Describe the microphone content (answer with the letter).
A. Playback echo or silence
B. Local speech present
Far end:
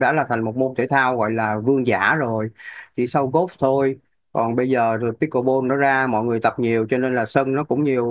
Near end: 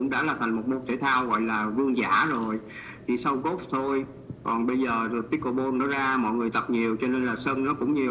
A